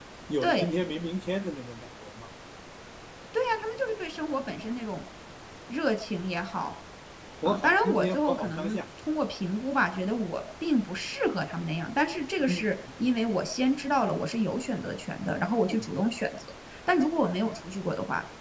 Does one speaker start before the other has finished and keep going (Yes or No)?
Yes